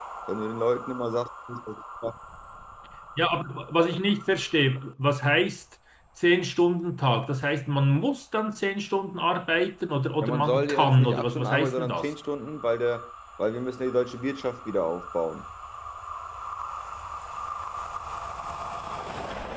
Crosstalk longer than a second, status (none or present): present